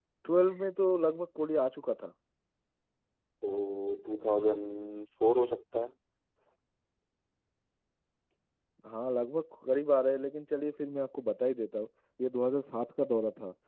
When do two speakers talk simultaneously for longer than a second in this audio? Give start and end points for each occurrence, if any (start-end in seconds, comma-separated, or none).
none